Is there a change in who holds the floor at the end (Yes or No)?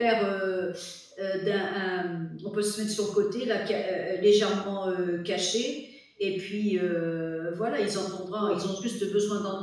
No